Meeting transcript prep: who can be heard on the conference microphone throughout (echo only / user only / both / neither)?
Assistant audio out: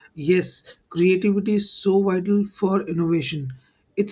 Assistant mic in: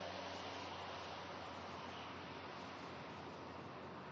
neither